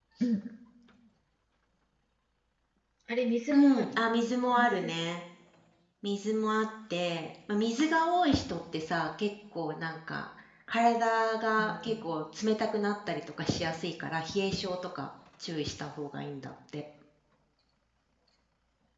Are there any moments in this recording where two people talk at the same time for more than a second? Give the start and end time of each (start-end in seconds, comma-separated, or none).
none